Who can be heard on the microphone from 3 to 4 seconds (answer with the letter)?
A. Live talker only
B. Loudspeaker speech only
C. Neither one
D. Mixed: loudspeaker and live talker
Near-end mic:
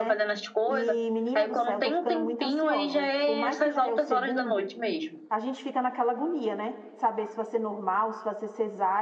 D